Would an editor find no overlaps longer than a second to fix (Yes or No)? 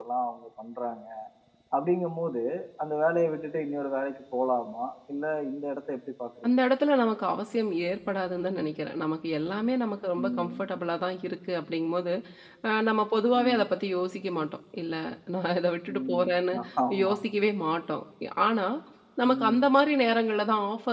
Yes